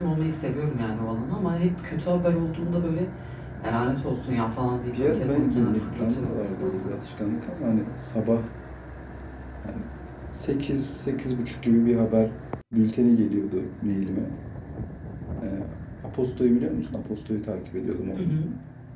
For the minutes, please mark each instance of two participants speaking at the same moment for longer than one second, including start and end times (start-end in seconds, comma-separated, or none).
5.0-6.9